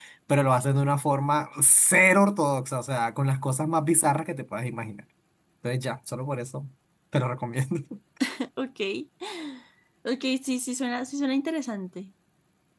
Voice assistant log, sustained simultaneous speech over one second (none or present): none